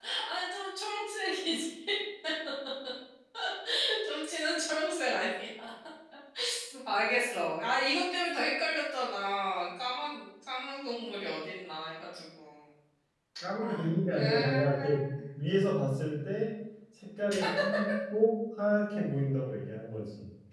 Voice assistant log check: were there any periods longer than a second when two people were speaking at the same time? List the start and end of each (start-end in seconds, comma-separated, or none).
13.6-15.1